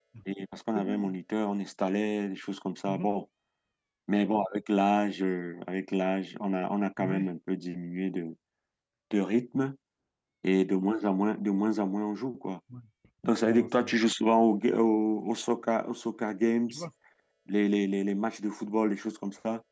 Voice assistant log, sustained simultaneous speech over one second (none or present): none